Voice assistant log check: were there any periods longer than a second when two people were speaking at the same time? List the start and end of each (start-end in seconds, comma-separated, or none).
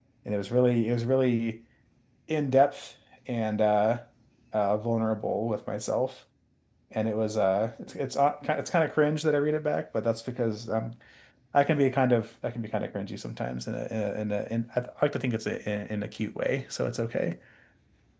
none